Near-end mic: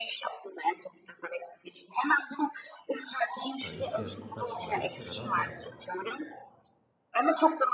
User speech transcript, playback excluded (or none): Ha, İhtiyacımı karşılarım kenara atarım.